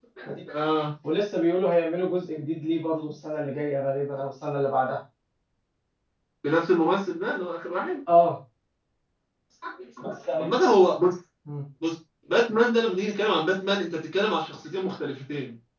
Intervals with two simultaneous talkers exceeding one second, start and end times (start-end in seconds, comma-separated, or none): none